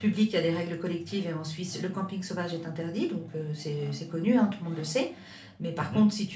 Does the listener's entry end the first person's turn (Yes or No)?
No